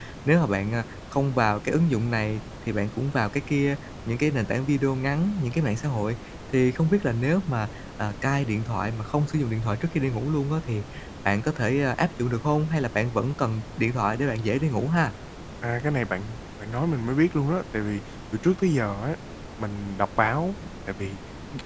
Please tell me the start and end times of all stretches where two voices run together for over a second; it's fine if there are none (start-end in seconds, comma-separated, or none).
none